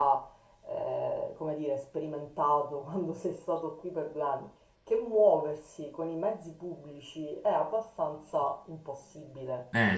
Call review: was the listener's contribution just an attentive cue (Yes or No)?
Yes